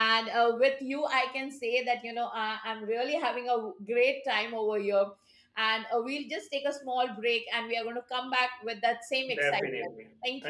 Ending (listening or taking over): taking over